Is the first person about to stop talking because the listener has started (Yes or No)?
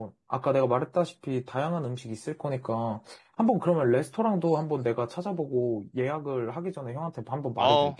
Yes